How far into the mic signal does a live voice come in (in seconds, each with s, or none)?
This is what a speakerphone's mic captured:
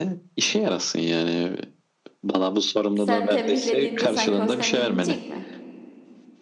2.9 s